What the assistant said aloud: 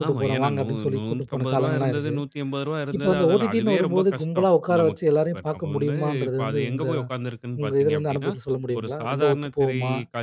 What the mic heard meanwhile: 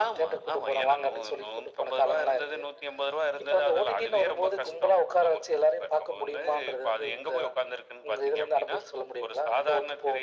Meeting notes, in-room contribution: none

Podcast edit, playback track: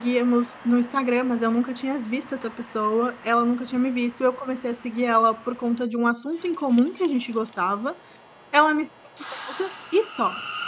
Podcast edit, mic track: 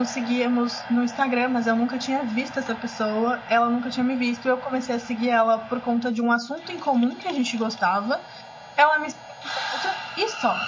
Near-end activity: none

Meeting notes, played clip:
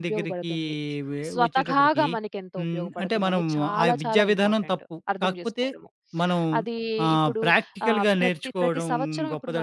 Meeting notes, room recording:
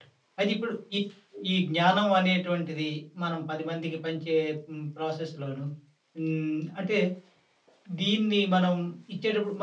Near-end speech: present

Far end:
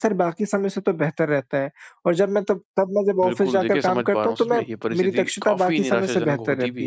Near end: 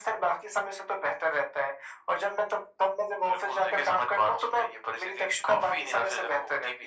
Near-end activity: none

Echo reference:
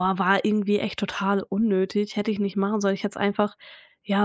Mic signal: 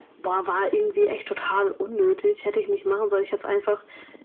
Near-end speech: none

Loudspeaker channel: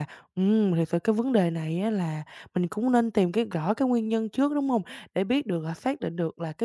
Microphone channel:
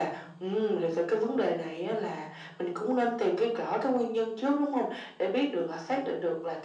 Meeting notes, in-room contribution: none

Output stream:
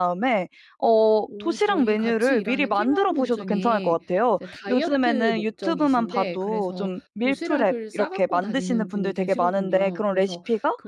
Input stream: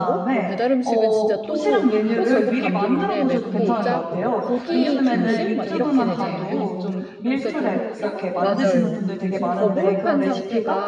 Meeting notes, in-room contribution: present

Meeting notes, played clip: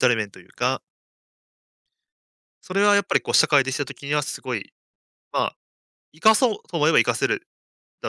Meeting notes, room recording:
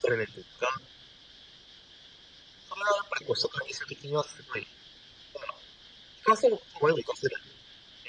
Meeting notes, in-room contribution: none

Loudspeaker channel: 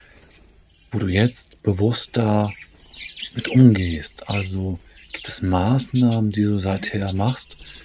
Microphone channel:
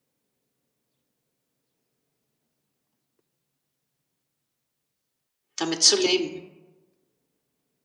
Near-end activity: present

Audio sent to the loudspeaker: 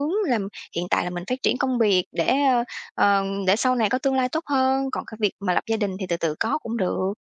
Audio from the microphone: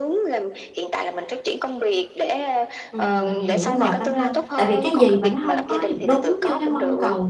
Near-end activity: present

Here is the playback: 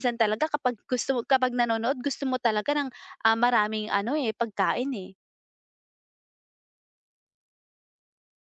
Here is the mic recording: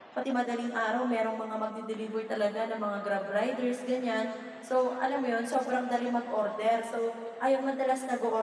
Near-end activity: present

